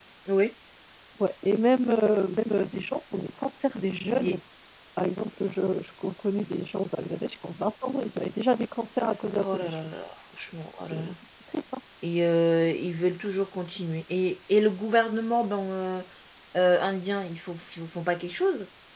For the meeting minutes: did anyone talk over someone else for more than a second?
No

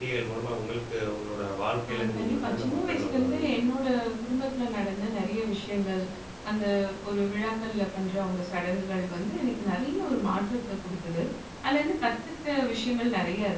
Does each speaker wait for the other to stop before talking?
No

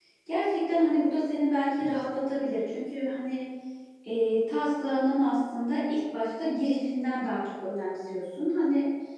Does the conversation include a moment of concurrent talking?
No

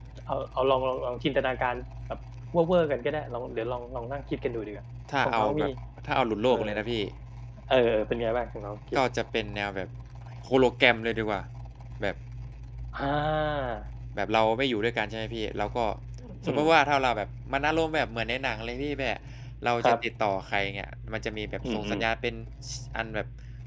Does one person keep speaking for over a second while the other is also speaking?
No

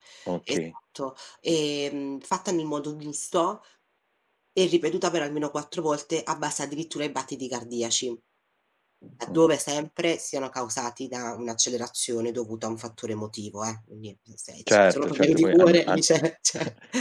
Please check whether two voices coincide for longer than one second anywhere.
Yes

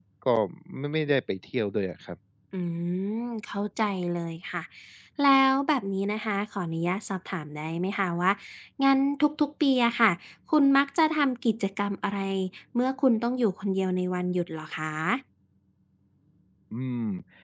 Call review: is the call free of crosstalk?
Yes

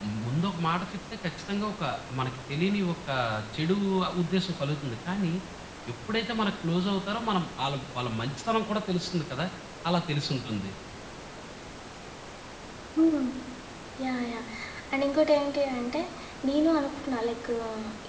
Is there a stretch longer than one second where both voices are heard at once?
No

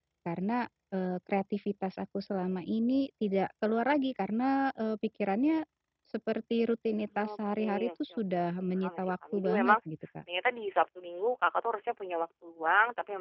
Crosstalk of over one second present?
Yes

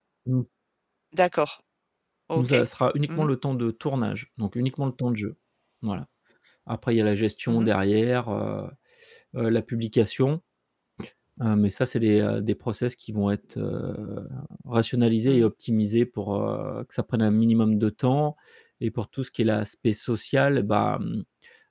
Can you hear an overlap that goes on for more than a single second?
No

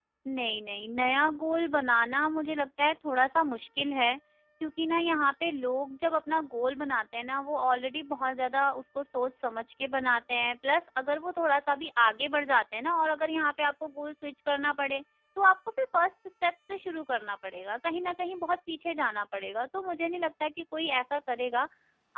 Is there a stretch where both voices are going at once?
No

